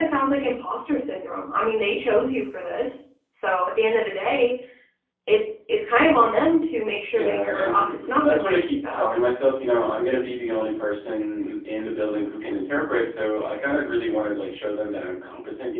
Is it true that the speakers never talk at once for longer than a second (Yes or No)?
No